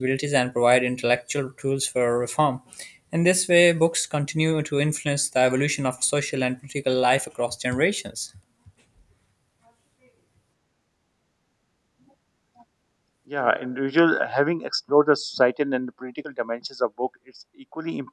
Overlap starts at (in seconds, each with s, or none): none